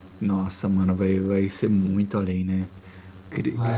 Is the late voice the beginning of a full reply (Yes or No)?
No